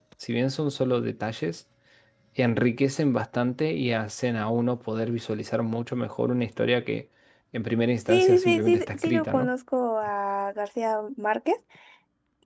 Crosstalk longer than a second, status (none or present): present